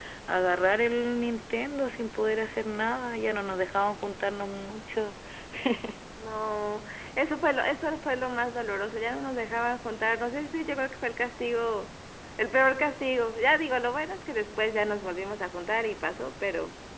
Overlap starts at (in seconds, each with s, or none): none